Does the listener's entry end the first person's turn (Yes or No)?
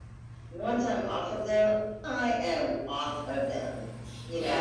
Yes